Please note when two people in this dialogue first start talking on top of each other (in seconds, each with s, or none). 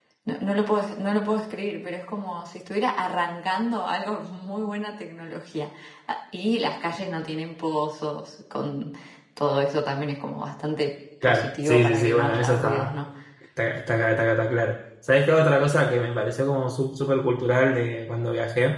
11.2 s